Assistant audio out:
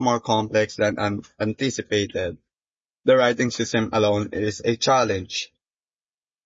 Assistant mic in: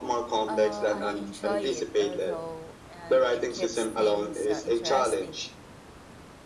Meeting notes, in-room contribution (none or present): present